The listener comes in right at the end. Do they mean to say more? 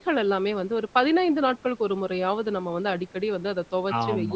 Yes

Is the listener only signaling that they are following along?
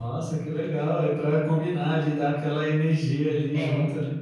No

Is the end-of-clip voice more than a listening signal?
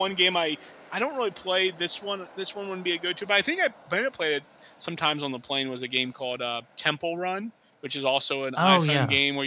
No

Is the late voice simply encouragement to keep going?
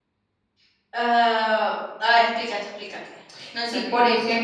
No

